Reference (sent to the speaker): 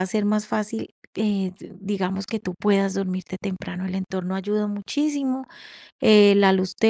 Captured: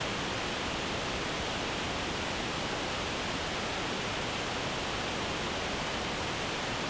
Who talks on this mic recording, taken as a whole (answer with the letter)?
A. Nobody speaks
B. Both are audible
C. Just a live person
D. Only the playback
A